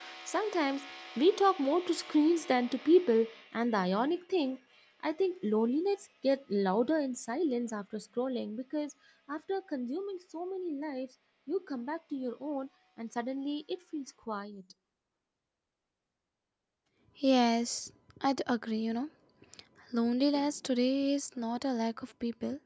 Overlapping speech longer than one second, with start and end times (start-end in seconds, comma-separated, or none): none